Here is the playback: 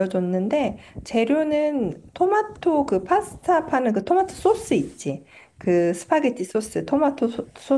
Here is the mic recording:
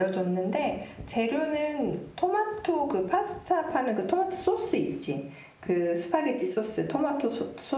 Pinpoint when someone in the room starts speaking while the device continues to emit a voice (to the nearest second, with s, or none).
none